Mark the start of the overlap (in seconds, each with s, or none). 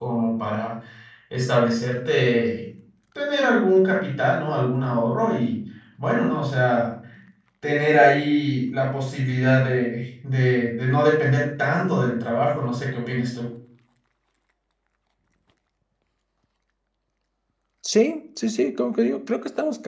none